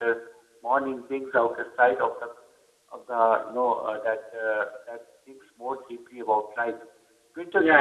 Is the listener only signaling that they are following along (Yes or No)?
No